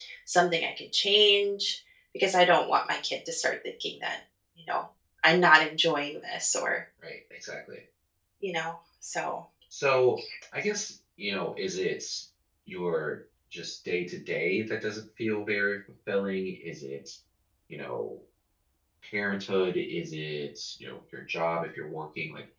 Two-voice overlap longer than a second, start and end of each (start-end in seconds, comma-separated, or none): none